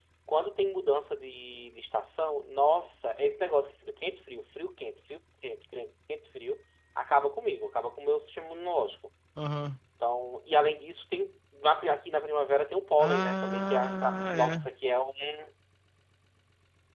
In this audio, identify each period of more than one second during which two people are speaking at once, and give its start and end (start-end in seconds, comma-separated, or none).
13.0-14.7